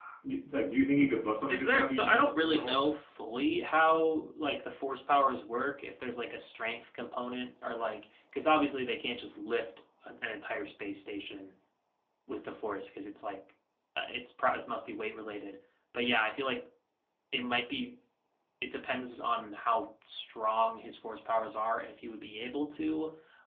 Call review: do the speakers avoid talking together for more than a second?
No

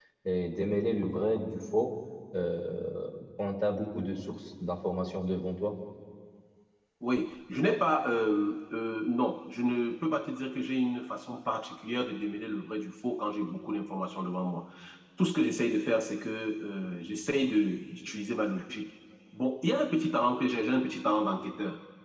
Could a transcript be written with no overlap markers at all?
Yes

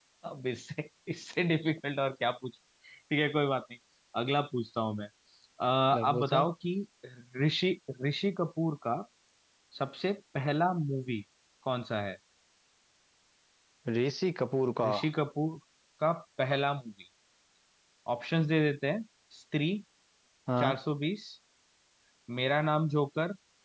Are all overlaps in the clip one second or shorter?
Yes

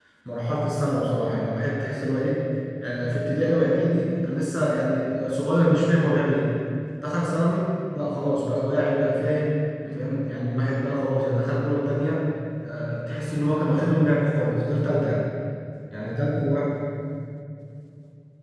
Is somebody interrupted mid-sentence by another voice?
No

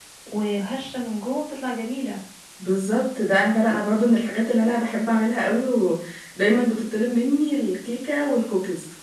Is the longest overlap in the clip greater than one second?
No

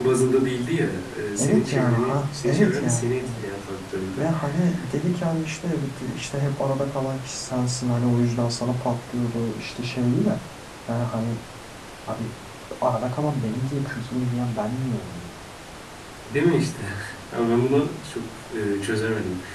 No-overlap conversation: No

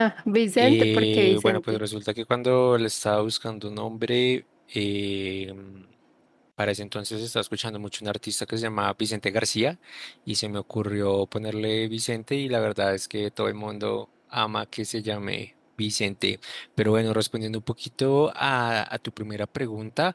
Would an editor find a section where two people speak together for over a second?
Yes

